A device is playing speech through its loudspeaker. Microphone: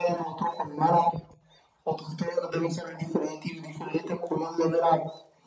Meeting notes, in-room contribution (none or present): none